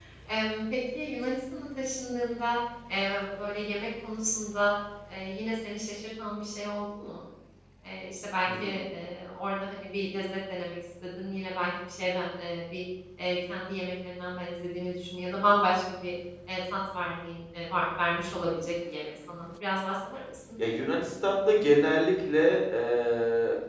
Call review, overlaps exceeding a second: none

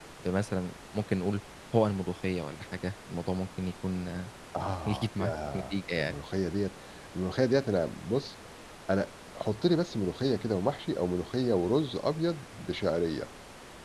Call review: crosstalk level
present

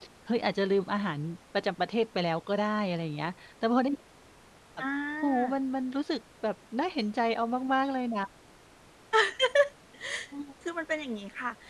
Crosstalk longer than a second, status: none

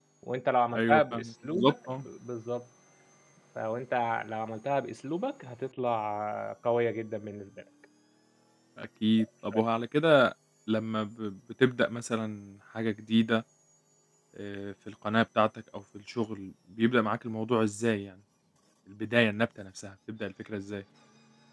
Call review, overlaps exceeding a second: present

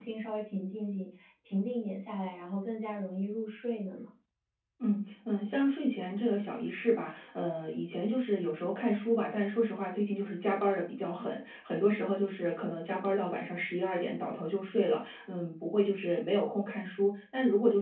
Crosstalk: none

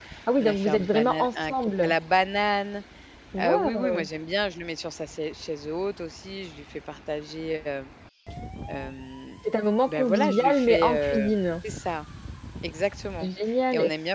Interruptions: present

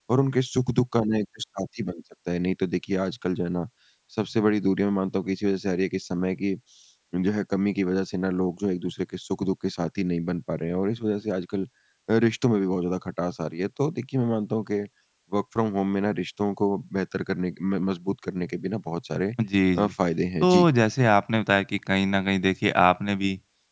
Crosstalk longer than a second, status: none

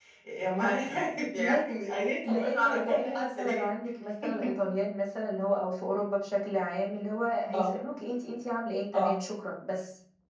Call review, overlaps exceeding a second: present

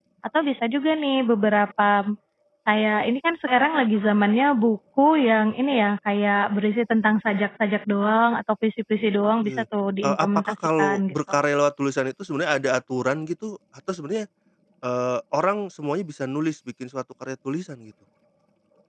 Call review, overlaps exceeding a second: present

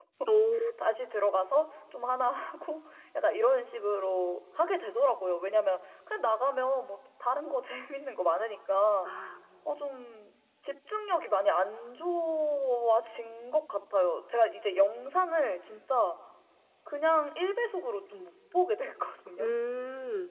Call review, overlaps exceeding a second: none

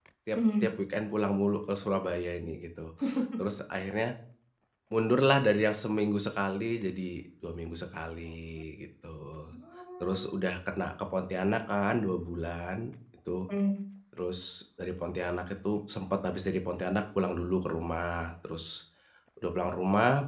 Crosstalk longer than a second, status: none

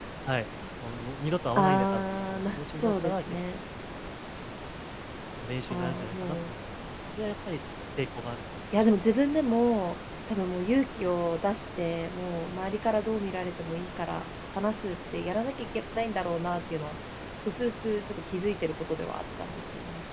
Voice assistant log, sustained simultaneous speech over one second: present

